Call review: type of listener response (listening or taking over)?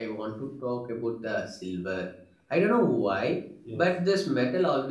listening